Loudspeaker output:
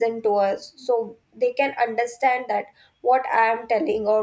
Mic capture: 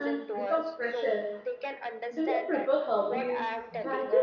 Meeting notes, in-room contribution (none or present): present